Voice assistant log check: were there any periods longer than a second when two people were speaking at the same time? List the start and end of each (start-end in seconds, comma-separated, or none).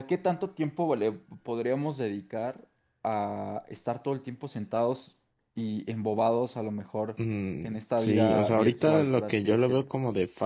7.6-9.8